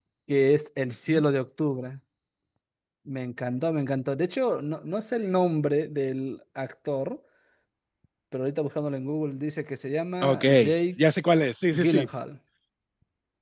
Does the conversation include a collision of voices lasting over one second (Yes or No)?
No